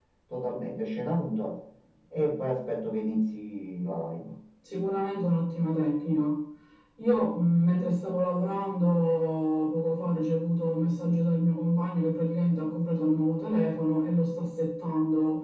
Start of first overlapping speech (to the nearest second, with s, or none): none